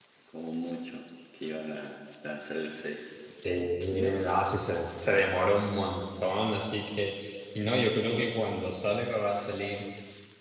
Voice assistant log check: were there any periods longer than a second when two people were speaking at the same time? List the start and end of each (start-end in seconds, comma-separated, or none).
none